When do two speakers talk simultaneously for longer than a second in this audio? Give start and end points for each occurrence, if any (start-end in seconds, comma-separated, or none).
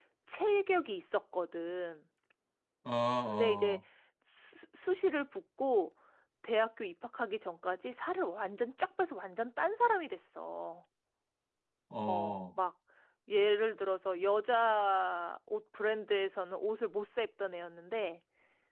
none